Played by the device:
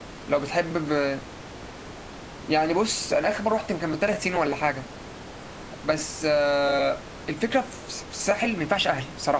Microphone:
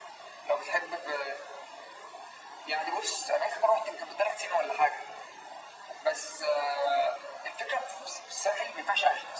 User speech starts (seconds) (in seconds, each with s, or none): none